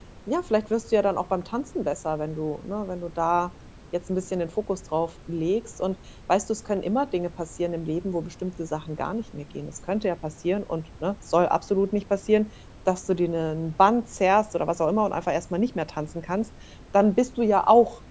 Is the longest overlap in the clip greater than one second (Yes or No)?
No